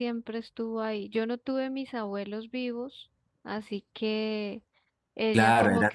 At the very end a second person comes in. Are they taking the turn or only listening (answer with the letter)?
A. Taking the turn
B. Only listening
A